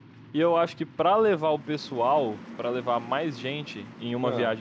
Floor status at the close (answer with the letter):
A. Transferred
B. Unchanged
B